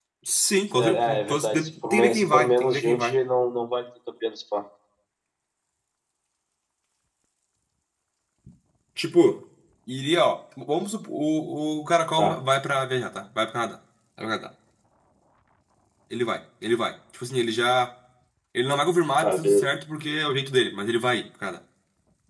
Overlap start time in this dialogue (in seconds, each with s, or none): 0.8 s